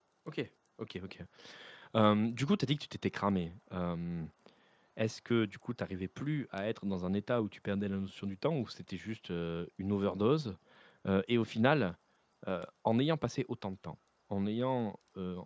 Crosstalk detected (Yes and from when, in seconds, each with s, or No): No